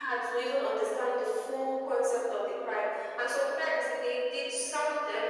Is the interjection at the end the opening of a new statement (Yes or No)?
No